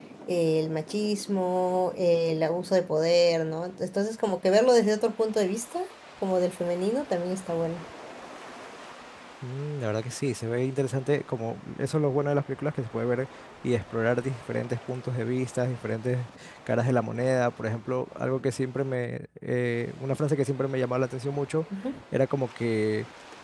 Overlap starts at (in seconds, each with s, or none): none